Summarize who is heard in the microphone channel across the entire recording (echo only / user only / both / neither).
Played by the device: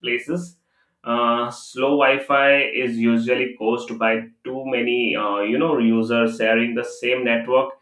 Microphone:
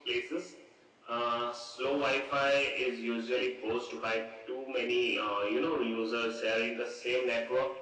echo only